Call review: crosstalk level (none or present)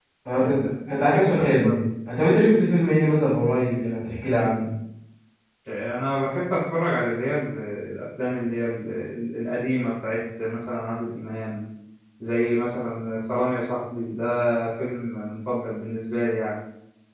present